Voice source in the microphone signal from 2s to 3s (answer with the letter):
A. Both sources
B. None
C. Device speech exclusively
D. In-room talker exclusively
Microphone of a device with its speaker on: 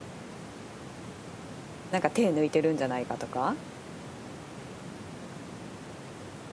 D